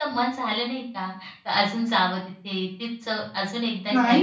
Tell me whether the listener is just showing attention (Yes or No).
No